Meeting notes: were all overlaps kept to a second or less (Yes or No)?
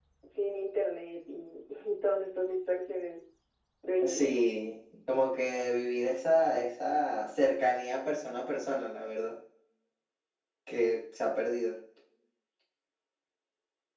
Yes